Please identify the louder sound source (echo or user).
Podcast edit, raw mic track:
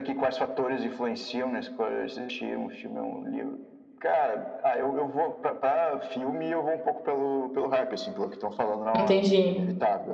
user